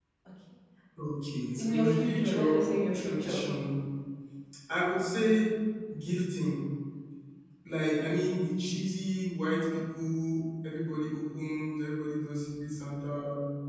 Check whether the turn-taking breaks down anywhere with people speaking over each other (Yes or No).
Yes